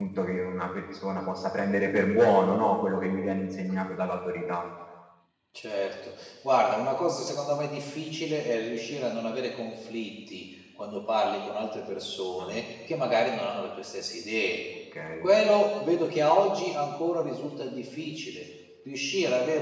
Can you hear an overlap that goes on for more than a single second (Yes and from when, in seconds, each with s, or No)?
No